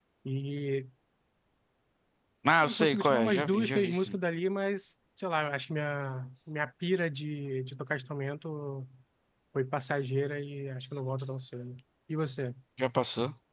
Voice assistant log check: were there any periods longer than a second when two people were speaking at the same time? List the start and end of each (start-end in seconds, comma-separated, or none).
2.6-4.2